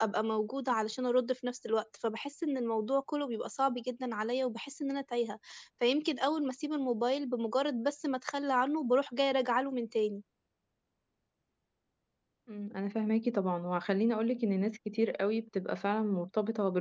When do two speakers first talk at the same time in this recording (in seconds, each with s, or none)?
none